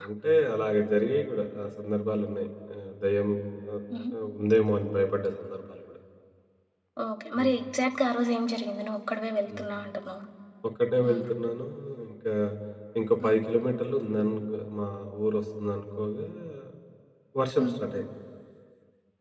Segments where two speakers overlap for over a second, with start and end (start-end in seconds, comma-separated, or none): none